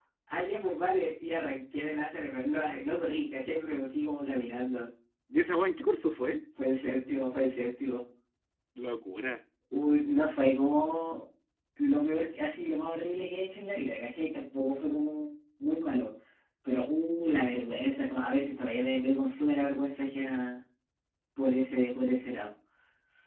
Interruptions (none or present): none